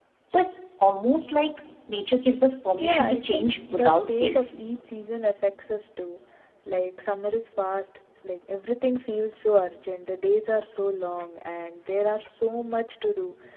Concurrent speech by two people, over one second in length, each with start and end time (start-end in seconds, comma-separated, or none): 2.8-4.4